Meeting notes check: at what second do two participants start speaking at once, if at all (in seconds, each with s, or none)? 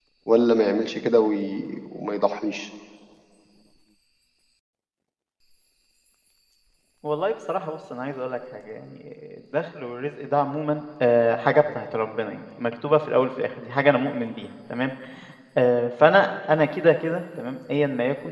none